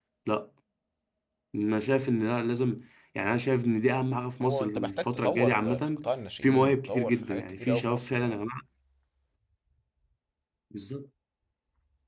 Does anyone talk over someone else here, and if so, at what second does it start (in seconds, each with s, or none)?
4.4 s